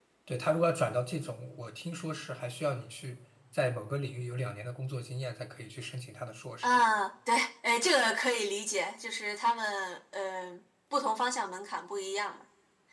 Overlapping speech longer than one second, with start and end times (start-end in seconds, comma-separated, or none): none